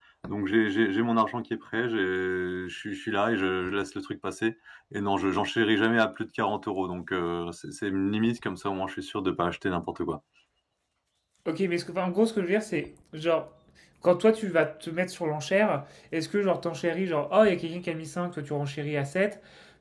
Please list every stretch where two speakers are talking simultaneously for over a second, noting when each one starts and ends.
none

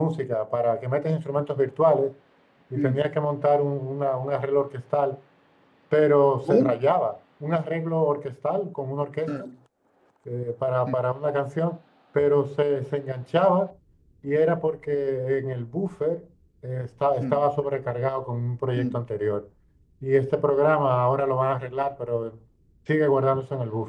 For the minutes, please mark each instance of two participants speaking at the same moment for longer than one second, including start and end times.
none

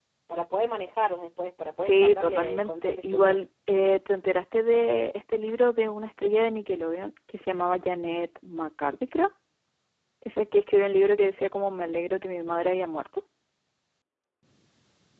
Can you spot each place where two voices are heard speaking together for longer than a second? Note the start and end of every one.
1.8-3.4

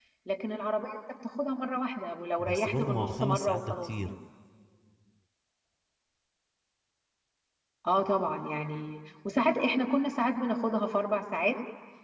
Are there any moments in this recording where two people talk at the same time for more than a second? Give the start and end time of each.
2.4-4.1

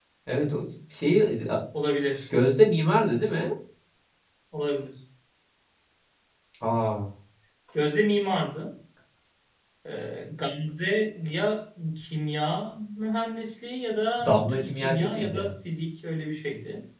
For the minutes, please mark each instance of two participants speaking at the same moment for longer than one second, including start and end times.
14.2-15.5

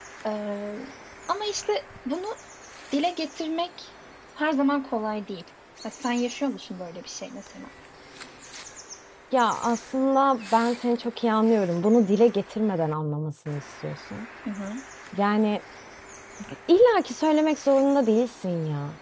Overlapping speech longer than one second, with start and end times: none

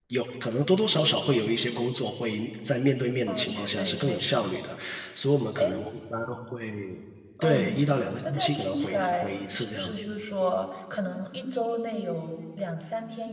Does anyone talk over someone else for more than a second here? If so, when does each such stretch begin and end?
3.3-4.5, 8.3-10.0

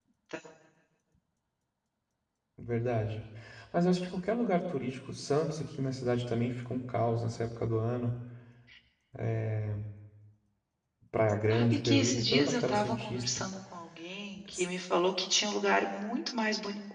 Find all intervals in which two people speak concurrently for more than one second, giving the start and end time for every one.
11.5-13.4

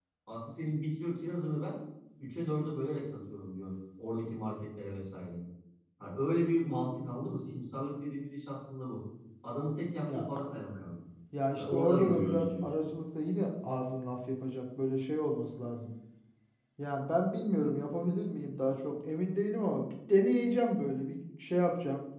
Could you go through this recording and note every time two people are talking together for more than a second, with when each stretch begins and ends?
11.6-12.8

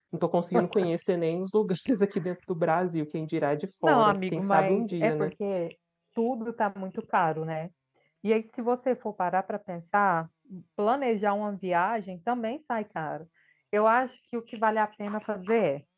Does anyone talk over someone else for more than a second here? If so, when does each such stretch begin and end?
3.8-5.3

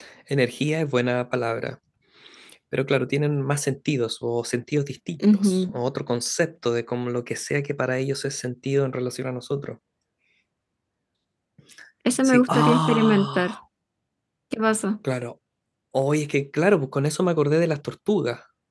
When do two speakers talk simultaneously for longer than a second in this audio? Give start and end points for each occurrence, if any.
12.2-13.5

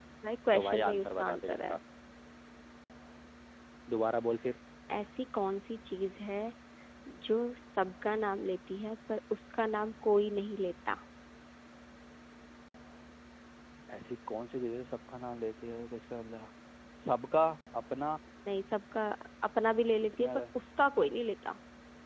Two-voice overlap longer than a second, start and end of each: 0.5-1.8

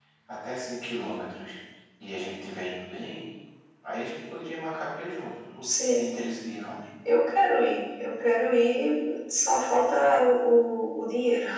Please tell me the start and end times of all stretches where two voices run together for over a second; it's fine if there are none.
none

